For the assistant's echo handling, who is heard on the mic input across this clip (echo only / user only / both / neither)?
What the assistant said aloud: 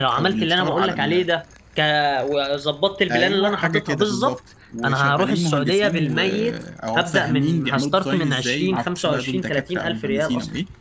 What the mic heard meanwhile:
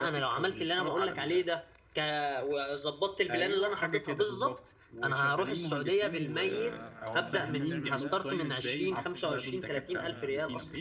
both